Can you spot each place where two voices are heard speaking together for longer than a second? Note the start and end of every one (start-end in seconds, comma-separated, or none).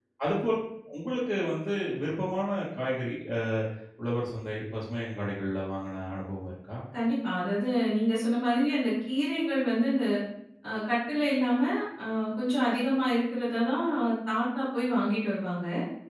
none